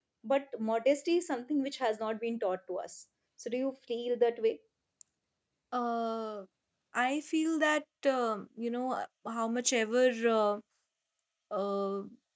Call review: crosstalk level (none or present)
none